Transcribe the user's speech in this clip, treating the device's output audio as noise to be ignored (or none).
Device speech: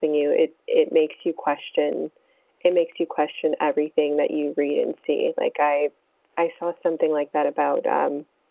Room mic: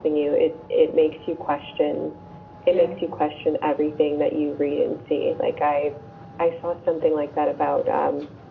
Yeah.